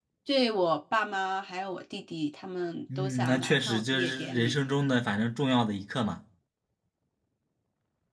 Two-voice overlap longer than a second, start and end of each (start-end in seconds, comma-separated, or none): 3.0-4.5